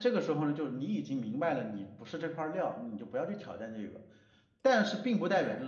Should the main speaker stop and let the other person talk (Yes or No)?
No